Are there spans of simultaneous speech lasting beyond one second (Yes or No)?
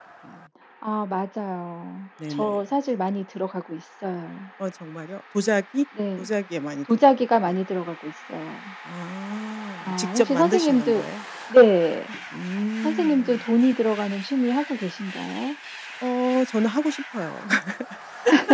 Yes